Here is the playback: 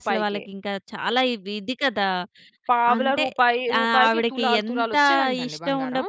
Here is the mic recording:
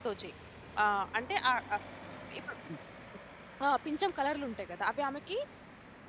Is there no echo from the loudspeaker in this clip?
Yes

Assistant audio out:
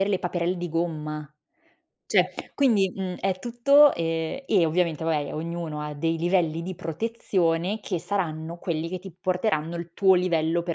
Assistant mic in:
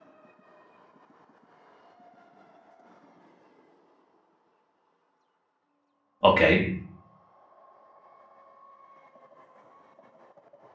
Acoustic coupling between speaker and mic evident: No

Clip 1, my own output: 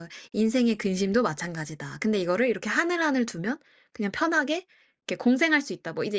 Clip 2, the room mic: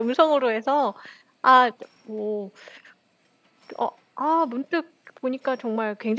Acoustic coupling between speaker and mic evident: No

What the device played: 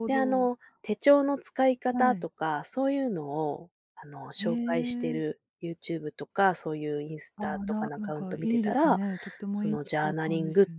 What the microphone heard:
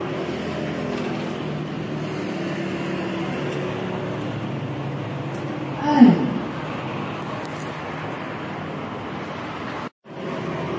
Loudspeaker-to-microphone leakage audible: No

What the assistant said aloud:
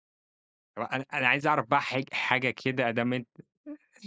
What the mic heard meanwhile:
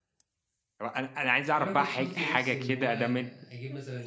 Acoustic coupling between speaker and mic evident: Yes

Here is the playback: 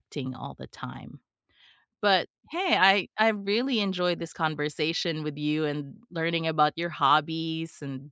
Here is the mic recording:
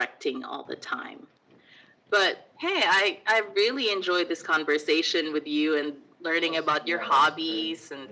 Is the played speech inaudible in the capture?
No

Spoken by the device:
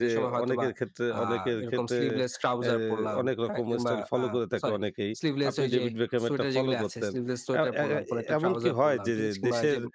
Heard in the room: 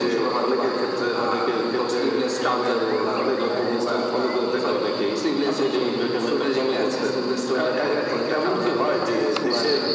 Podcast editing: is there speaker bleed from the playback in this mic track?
Yes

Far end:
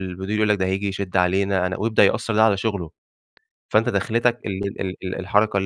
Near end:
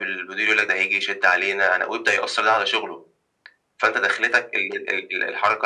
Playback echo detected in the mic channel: Yes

